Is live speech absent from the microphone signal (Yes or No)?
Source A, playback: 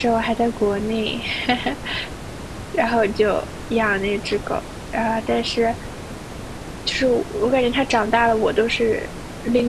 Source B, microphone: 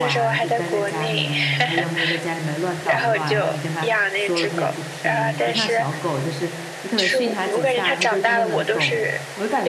No